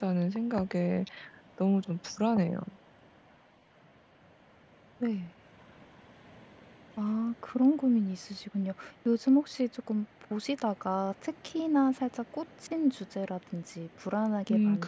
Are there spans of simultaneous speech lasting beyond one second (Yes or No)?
No